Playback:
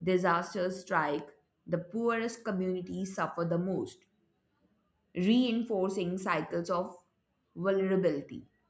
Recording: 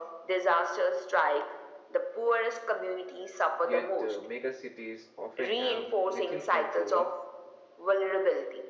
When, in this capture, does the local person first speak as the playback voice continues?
4 s

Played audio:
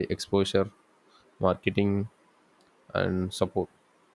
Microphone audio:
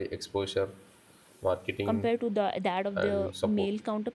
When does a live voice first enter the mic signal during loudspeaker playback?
2 s

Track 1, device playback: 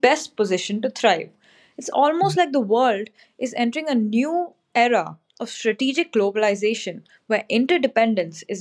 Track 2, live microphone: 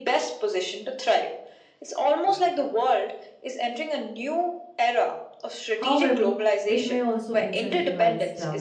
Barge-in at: 6 s

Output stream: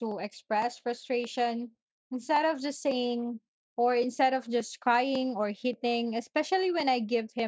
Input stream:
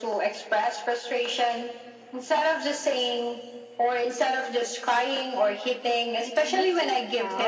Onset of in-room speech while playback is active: 6 s

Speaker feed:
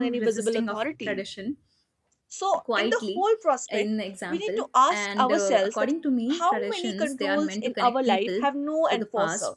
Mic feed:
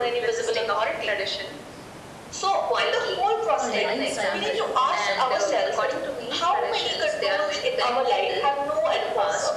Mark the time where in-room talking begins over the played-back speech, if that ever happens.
4 s

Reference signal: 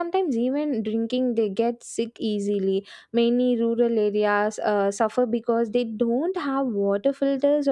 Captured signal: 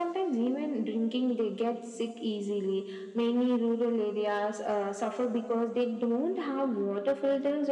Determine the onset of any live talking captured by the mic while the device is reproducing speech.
none

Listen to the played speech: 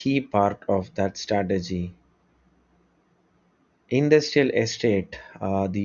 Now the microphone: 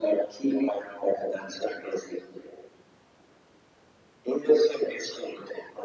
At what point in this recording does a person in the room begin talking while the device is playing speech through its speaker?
none

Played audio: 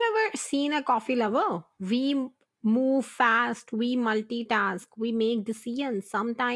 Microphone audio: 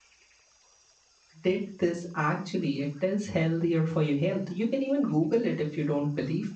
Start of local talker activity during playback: 1 s

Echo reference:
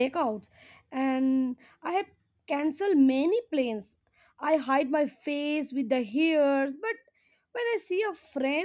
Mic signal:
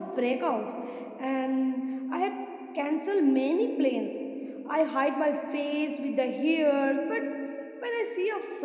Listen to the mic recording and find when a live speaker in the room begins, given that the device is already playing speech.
none

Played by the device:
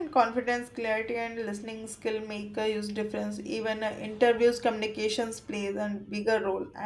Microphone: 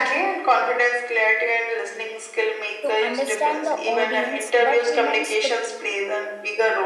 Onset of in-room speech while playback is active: 3 s

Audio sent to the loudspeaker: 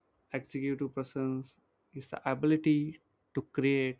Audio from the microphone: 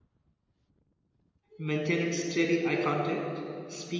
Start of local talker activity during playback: 2 s

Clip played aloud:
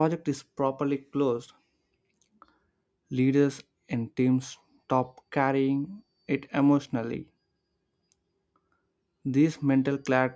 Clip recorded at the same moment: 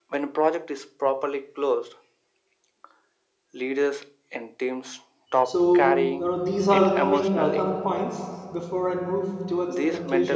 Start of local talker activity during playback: 5 s

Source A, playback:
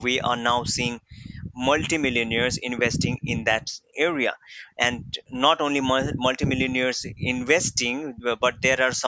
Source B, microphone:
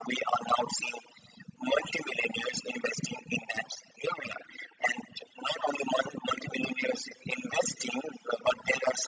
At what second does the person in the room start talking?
none

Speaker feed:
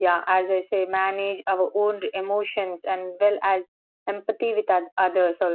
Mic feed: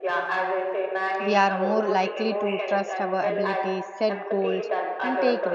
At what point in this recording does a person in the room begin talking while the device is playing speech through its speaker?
1 s

